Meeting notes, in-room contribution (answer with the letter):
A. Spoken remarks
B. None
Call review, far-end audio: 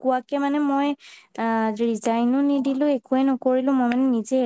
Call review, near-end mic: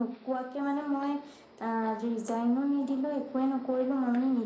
B